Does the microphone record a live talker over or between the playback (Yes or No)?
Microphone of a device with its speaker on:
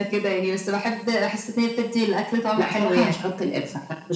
No